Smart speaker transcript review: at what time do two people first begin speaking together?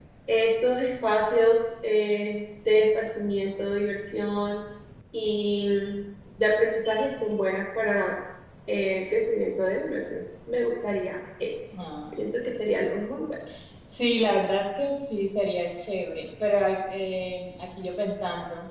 none

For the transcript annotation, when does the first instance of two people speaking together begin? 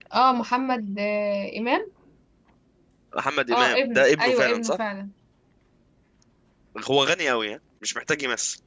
3.5 s

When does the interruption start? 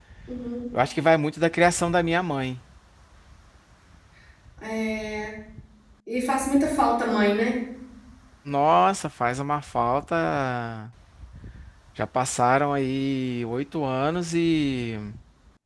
none

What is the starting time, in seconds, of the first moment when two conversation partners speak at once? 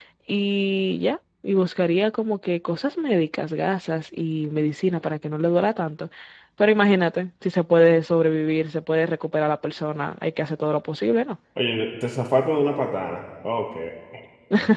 none

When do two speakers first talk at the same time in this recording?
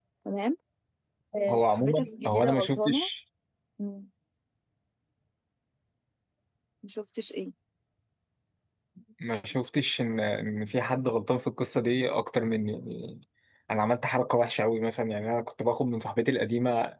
1.5 s

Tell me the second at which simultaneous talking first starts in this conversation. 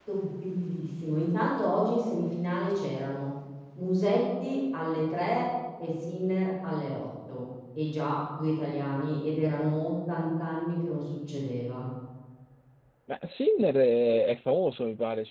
none

